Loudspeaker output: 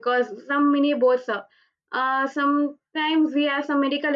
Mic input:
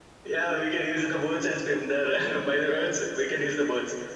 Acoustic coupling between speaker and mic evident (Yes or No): No